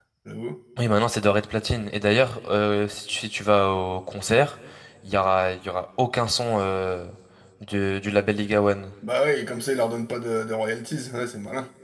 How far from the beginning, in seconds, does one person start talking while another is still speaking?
none

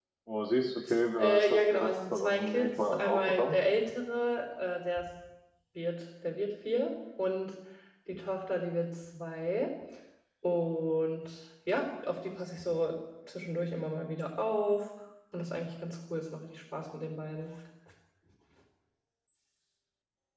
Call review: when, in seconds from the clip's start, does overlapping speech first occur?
1.2 s

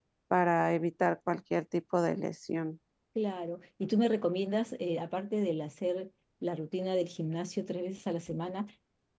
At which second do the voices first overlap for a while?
none

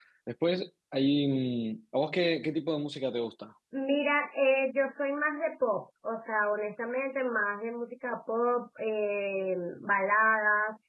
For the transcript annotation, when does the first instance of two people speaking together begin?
none

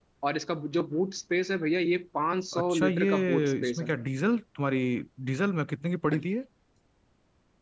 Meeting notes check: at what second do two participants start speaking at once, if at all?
2.5 s

